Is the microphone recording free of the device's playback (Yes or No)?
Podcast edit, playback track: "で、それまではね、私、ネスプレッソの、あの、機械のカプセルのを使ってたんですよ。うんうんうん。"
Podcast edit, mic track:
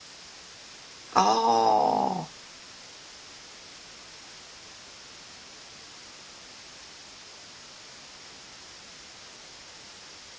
Yes